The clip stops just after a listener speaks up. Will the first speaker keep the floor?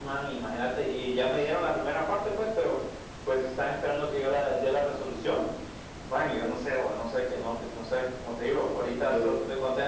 Yes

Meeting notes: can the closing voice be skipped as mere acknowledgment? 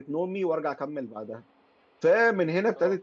Yes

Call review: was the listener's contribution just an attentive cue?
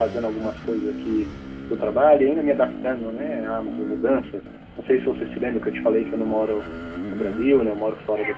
No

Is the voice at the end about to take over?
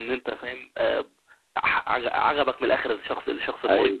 Yes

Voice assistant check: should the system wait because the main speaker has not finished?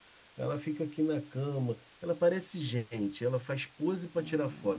No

